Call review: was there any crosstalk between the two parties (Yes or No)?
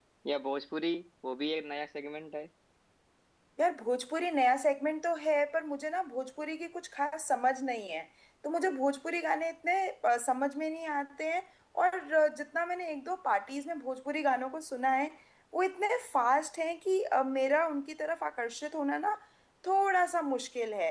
No